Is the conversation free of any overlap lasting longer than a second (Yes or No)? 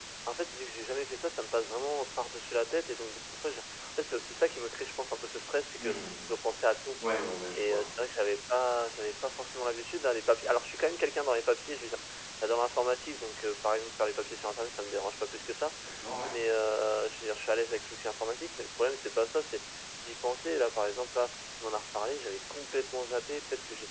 Yes